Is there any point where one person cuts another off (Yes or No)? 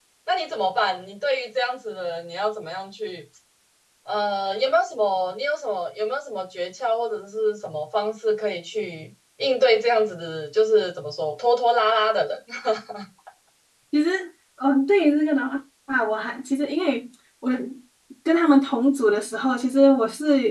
No